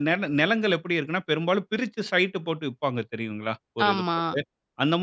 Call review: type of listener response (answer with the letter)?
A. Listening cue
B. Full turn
A